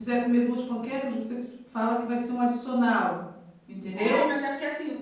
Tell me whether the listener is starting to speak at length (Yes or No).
Yes